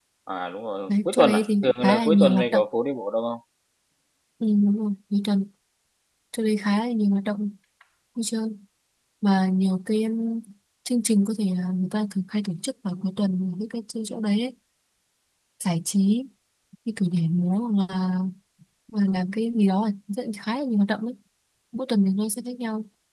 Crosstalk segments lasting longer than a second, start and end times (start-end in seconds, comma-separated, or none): 0.9-2.6